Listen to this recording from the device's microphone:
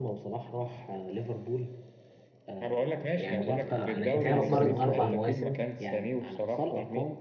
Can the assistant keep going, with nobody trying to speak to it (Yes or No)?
No